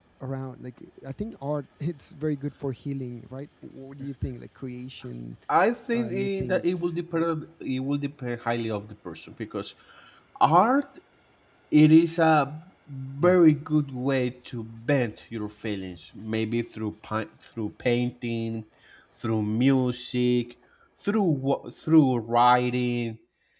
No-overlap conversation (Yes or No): No